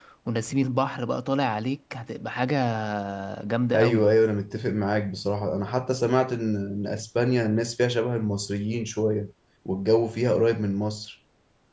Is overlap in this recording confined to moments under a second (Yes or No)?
Yes